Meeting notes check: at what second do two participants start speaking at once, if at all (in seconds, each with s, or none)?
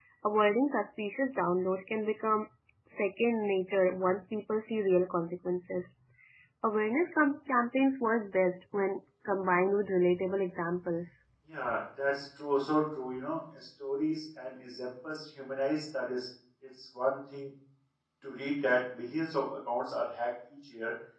none